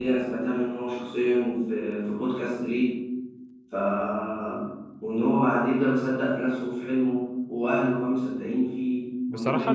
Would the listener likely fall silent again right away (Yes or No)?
No